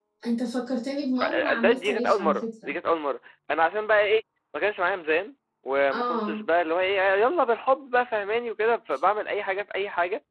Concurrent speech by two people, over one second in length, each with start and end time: 1.2-2.7

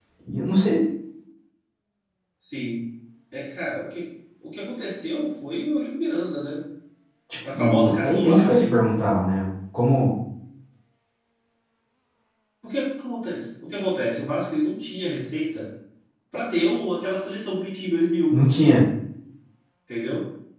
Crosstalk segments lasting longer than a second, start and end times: 7.5-8.8

